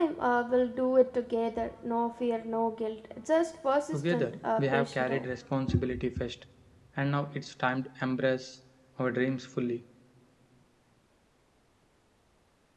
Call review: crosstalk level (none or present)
present